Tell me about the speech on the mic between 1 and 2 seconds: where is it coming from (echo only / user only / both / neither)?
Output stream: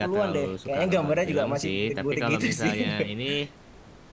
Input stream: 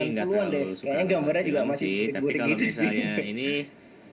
echo only